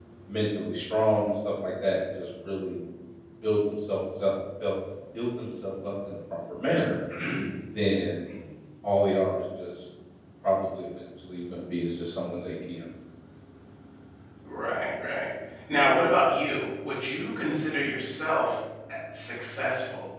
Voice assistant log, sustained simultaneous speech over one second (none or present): none